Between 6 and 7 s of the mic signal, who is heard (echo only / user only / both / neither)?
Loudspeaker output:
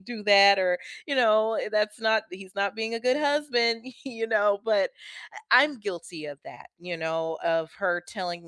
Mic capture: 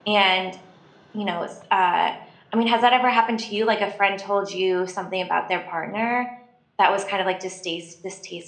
user only